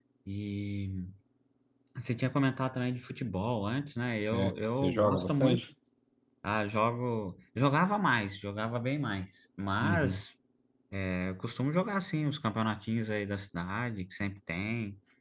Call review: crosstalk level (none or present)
present